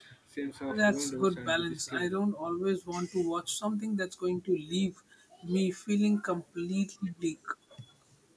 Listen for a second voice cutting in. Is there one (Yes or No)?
Yes